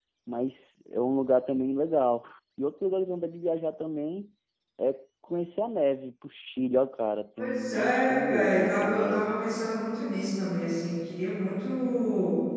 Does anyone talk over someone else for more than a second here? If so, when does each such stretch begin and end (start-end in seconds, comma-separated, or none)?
7.4-9.4